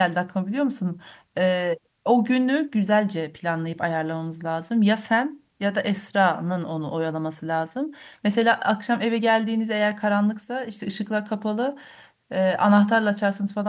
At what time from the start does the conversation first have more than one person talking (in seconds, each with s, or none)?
none